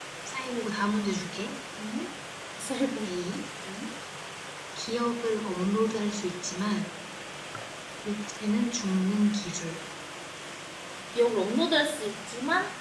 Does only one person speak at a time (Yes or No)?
Yes